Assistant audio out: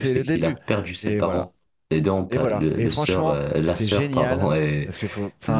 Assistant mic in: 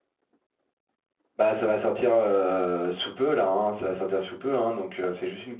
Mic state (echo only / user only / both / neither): user only